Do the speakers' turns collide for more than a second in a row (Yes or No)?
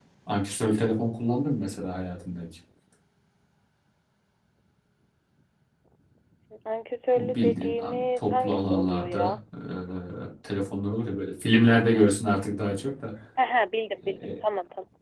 Yes